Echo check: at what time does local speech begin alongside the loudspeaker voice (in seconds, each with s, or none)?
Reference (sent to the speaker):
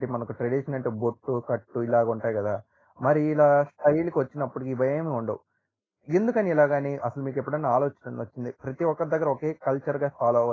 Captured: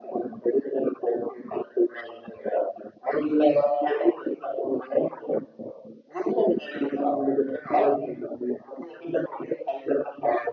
none